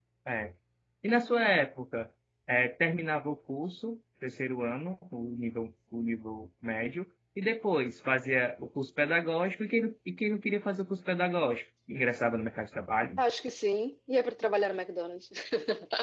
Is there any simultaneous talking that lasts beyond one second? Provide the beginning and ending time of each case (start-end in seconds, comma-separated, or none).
none